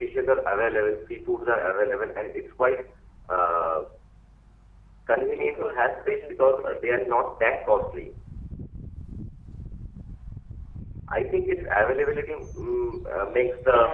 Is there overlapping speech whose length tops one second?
Yes, from 5.5 s

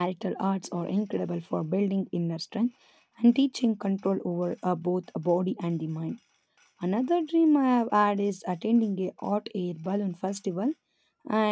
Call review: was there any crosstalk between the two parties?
No

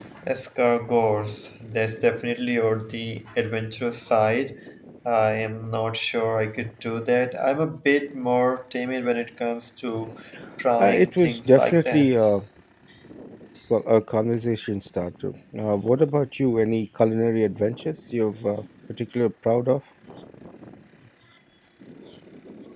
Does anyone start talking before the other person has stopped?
Yes, from 10.8 s

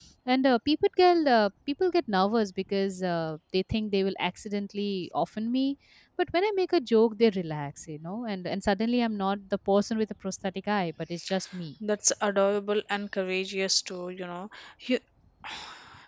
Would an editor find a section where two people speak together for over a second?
No

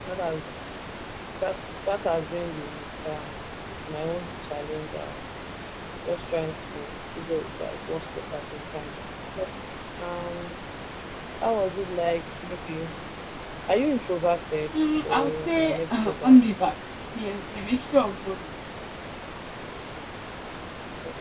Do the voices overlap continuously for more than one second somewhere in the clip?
Yes, from 15.0 s

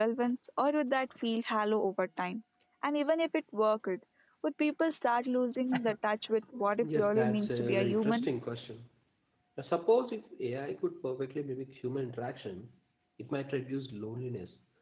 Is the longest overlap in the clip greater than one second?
Yes, from 6.8 s

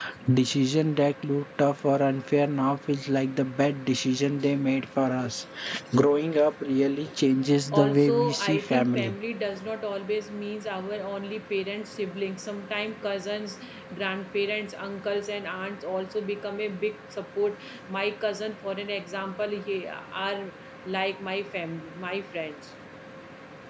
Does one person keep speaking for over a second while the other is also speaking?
Yes, from 7.7 s

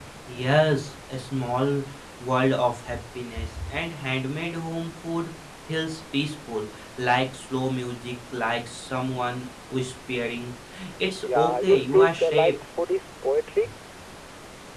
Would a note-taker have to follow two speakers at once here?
Yes, from 11.2 s

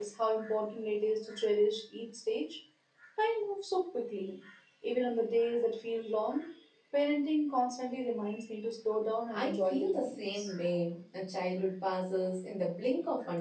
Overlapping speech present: Yes, from 9.3 s

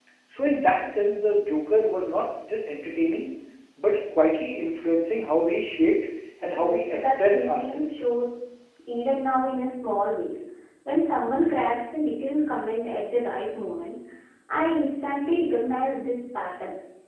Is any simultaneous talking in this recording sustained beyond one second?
Yes, from 6.5 s

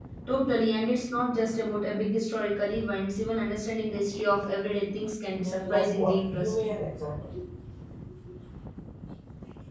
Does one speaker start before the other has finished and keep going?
Yes, from 5.4 s

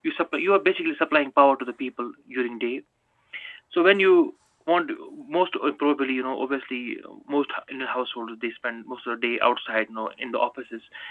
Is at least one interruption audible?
No

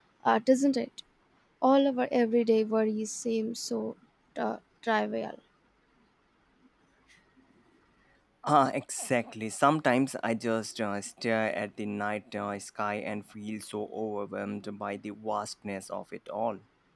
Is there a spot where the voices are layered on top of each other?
No

